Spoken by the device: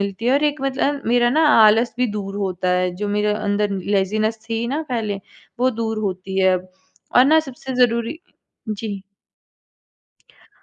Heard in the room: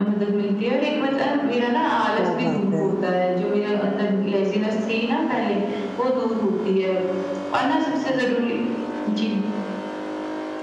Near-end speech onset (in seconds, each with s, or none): 2.2 s